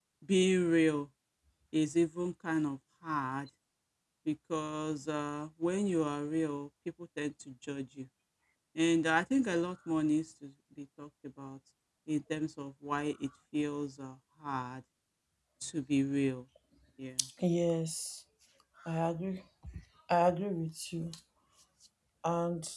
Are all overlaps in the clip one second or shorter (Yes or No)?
Yes